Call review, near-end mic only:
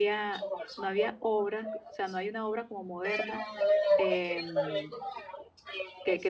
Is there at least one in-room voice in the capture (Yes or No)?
Yes